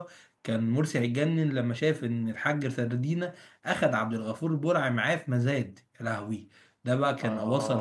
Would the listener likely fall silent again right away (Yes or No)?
Yes